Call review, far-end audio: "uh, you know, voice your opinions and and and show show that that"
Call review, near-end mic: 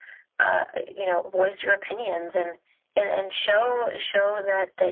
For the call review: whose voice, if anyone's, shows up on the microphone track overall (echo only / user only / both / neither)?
both